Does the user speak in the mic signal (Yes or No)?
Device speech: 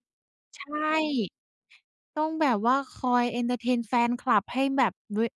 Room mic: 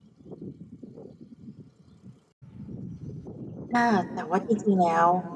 Yes